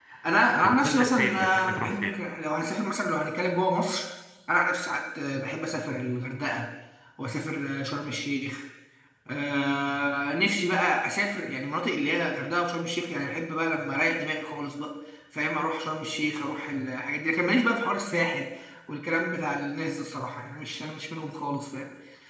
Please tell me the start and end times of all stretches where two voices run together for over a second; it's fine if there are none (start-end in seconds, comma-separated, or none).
0.6-2.1